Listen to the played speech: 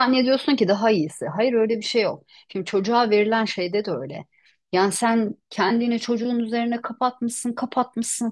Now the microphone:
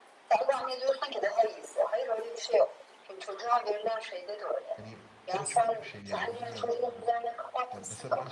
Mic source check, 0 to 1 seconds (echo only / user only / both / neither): echo only